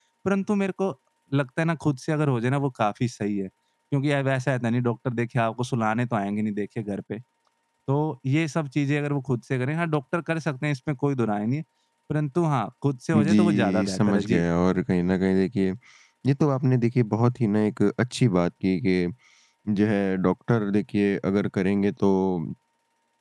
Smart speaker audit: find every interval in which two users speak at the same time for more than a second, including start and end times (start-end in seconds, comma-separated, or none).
13.2-14.4